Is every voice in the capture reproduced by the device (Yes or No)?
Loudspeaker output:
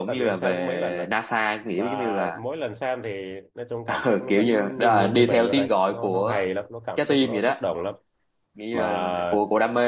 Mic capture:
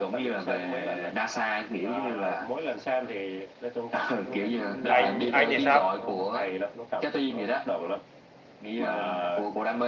No